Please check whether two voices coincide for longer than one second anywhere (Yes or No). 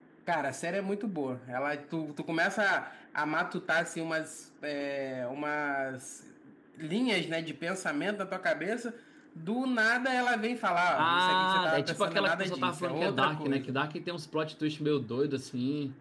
Yes